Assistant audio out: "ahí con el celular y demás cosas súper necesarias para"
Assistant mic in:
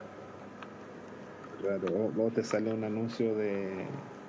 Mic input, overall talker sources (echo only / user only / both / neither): user only